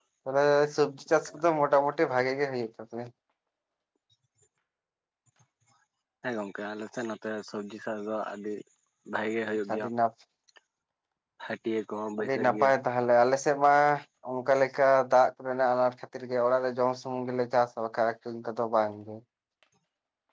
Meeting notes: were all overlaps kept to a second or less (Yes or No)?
Yes